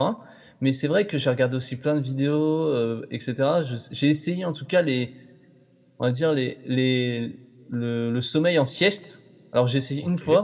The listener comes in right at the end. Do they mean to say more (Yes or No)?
No